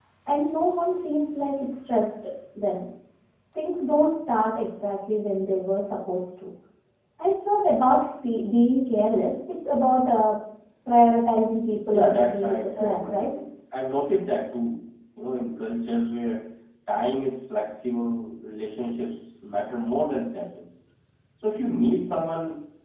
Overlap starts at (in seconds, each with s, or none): 11.8 s